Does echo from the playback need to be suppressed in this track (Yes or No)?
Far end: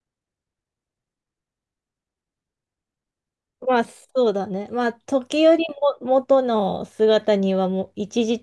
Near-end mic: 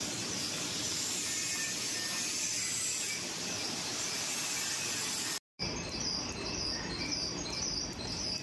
No